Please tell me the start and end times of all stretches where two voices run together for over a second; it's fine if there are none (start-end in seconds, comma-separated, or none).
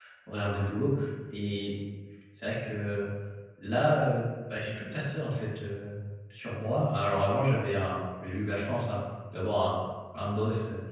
none